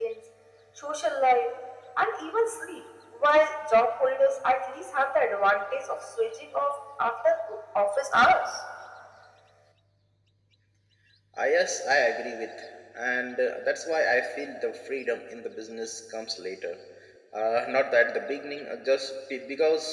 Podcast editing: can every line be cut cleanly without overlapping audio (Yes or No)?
Yes